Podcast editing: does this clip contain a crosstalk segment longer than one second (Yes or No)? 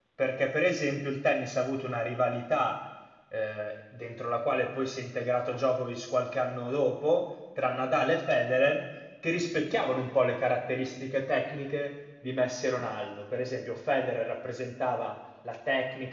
No